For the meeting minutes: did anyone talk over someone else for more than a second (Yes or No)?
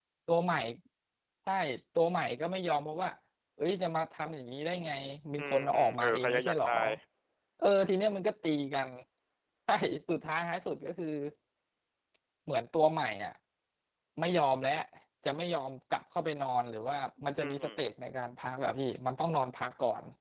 Yes